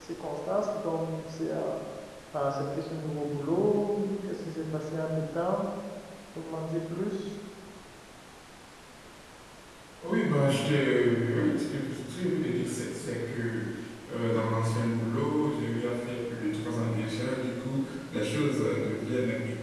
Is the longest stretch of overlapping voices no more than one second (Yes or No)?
Yes